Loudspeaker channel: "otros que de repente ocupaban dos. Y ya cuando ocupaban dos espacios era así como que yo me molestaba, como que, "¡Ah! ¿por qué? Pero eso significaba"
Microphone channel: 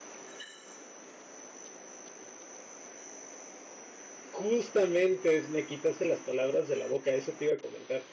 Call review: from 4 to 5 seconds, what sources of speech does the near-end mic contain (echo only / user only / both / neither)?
user only